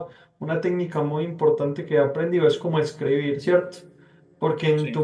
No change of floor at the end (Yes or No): Yes